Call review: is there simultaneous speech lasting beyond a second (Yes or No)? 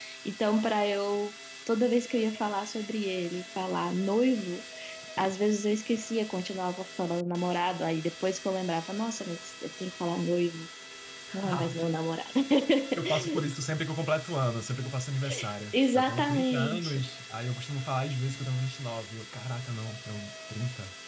Yes